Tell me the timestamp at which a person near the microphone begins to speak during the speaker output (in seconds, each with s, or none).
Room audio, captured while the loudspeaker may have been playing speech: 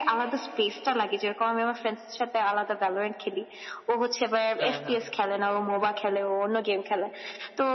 4.6 s